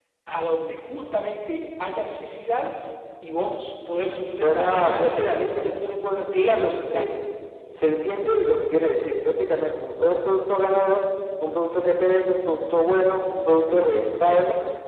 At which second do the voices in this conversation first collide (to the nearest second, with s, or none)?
4 s